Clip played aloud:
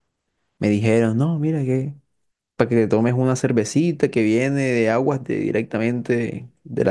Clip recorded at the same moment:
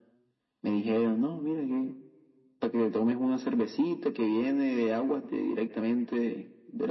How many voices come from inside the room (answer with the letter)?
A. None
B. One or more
A